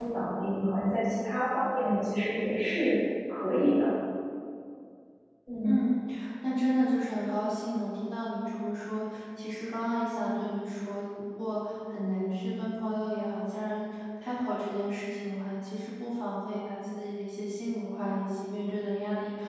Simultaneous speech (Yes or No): No